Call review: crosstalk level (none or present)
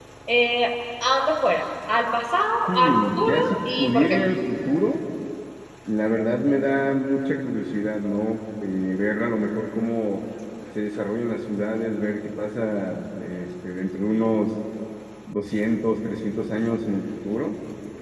present